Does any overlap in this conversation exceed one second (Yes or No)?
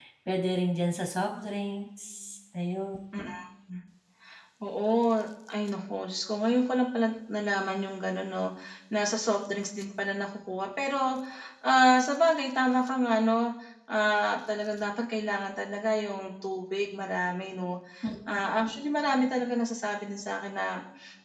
No